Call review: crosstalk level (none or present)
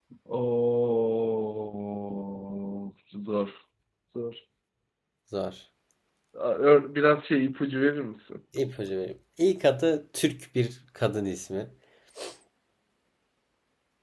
none